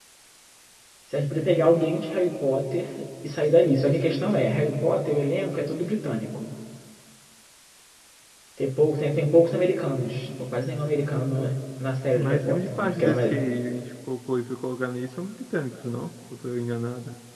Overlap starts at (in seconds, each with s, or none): 12.2 s